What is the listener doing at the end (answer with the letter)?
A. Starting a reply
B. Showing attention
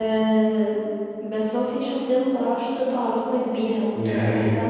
B